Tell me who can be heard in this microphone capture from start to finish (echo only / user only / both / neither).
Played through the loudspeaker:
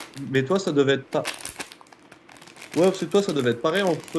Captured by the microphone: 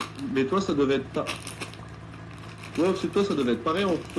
echo only